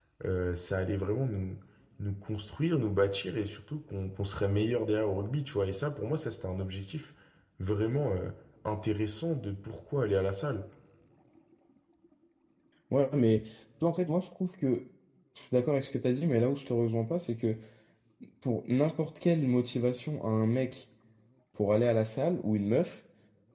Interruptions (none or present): none